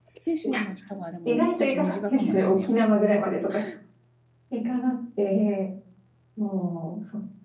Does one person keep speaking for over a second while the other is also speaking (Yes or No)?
Yes